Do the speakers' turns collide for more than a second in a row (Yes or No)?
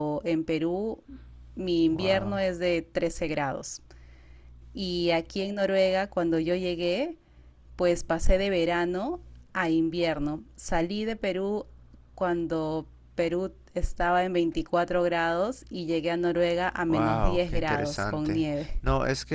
Yes